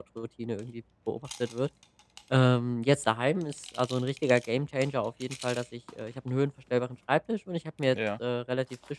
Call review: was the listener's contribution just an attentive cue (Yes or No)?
Yes